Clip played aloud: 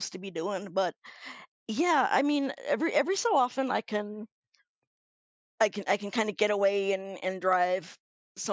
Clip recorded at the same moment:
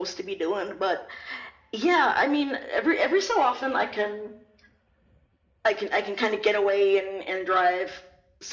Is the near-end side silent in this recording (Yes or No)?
Yes